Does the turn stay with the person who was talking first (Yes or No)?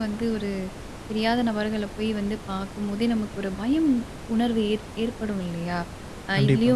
Yes